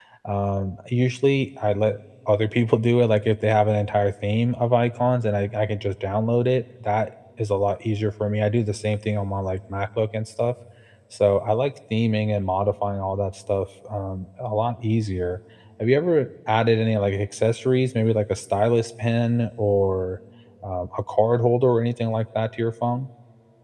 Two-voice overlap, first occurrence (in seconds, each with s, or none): none